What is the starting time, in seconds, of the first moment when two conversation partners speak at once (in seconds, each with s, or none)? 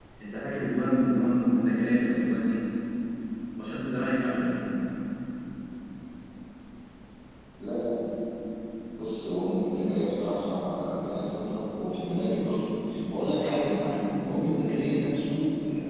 none